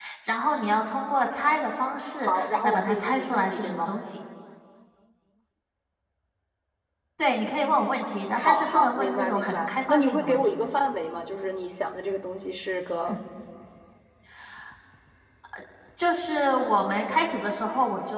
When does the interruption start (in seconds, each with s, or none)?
2.3 s